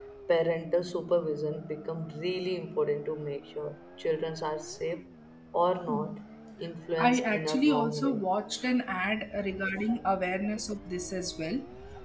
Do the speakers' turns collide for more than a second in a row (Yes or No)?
Yes